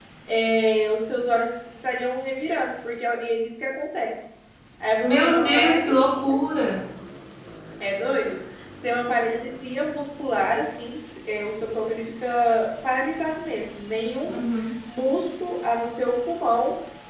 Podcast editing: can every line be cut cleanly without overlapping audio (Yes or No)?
No